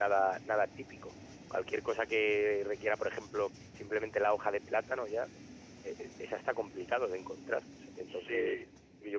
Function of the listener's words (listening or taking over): listening